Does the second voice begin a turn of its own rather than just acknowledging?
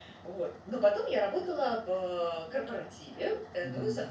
No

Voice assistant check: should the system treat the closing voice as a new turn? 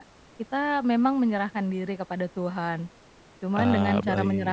No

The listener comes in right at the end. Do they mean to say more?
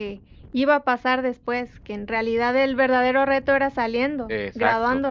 Yes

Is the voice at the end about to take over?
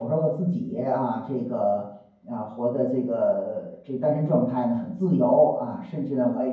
Yes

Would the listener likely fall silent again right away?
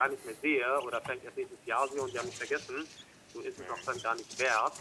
Yes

